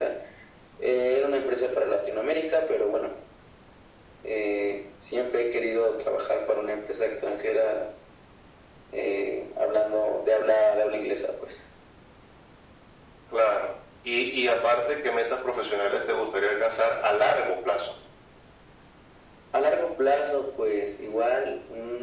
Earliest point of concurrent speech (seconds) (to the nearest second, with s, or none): none